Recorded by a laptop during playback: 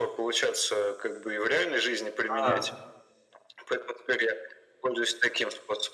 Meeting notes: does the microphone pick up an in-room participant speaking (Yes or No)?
Yes